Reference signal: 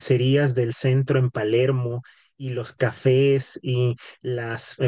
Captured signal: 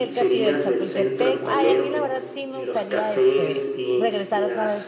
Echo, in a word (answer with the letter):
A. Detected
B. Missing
A